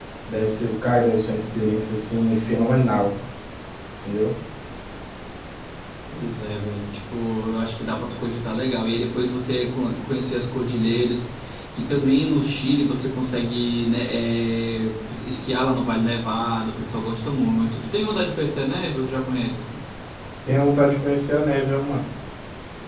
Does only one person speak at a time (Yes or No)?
Yes